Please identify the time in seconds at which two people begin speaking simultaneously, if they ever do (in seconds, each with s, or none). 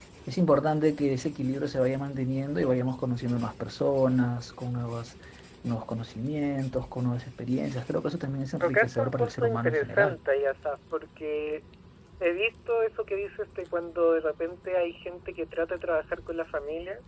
8.6 s